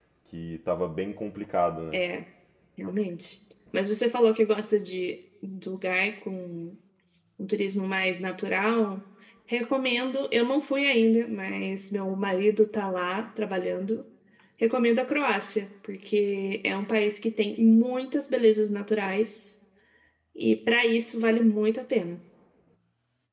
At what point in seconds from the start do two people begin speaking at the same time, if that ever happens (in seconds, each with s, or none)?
none